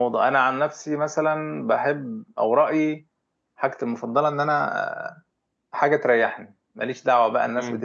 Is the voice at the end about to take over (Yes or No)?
No